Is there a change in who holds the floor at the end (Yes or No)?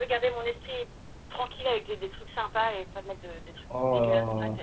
Yes